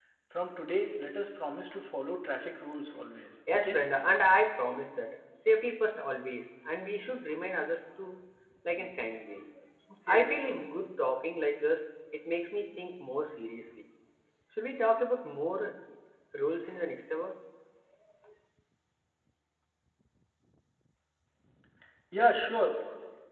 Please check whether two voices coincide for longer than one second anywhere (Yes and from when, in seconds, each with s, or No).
No